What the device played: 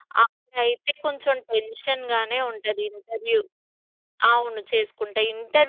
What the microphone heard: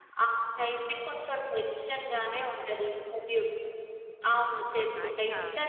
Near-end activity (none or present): present